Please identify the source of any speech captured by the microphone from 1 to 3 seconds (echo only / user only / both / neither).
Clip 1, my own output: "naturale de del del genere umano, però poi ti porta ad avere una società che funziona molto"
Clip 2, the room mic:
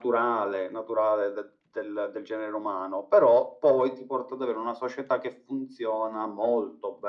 echo only